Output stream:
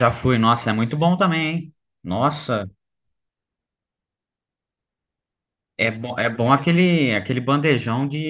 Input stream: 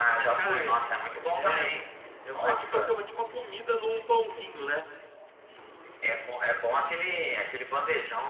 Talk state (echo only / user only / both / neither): both